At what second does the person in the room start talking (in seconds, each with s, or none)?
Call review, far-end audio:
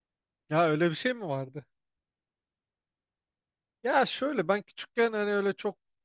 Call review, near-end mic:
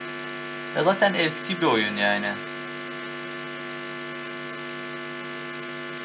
0.7 s